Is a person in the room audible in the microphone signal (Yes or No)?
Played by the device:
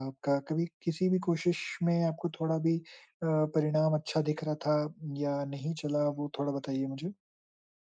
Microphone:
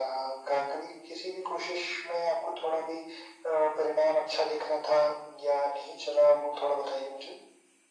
No